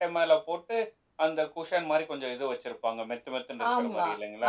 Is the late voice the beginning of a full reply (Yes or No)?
Yes